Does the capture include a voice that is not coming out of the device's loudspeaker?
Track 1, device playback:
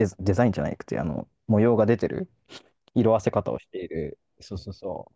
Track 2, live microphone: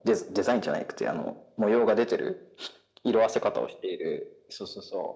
No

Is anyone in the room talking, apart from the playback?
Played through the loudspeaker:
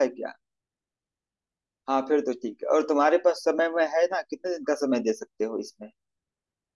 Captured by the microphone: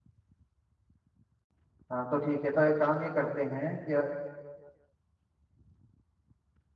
Yes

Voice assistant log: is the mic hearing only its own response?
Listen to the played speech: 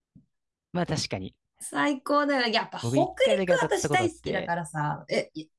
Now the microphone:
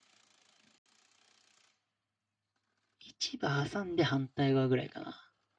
No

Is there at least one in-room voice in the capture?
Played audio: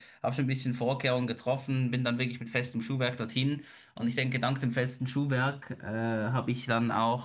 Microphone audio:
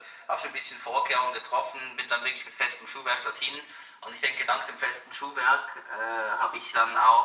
No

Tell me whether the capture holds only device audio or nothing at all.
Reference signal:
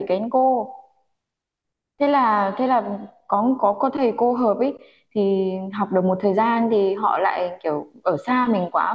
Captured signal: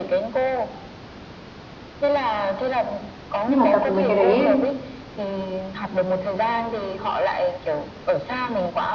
No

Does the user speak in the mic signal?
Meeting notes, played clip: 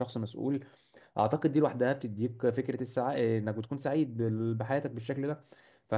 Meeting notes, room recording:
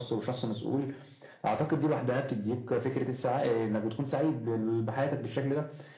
No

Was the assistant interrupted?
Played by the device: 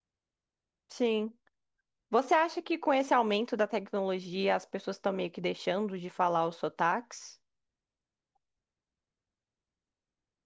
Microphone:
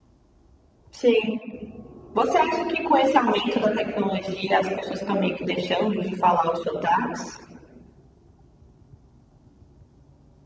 Yes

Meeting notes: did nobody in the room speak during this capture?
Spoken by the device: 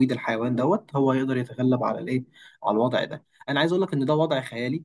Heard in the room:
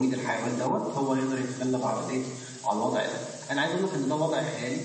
Yes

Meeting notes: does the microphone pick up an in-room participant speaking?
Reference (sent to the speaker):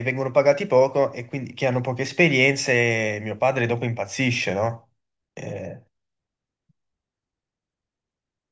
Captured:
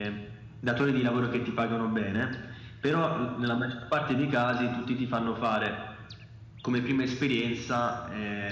Yes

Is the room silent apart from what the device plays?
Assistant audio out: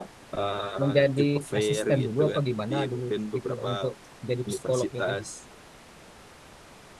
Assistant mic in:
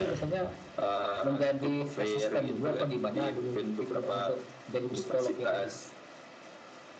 Yes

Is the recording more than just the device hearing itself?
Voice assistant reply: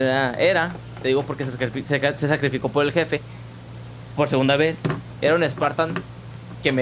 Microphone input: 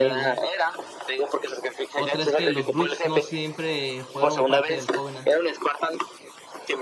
Yes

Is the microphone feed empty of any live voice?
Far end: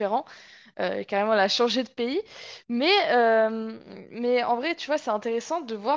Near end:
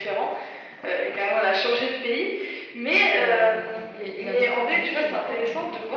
No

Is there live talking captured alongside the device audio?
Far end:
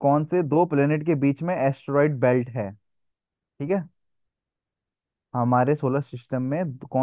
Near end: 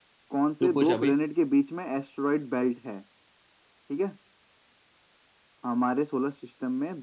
Yes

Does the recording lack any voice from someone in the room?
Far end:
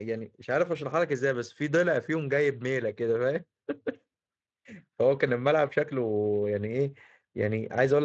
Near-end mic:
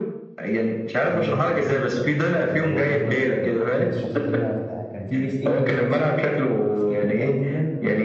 No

